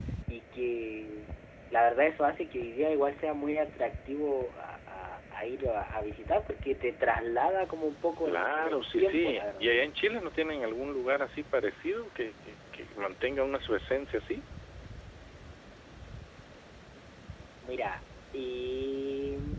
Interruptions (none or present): present